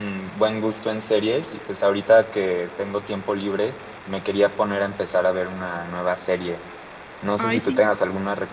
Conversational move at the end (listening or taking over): listening